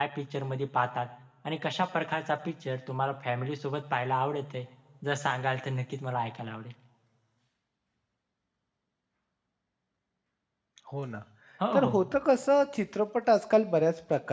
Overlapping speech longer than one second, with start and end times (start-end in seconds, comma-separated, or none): none